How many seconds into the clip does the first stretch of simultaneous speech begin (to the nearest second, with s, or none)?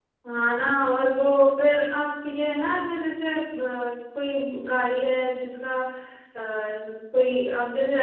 none